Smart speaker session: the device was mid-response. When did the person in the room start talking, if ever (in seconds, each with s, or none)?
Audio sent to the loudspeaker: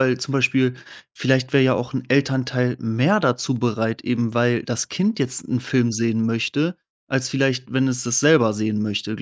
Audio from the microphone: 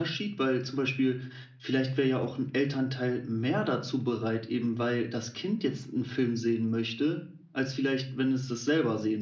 none